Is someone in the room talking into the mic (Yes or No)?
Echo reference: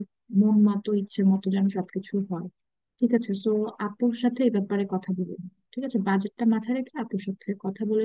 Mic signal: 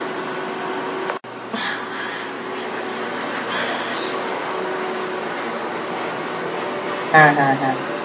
Yes